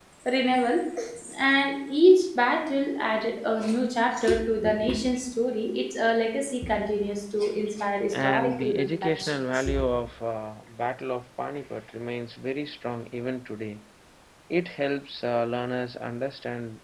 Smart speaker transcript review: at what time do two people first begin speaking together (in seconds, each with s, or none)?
8.1 s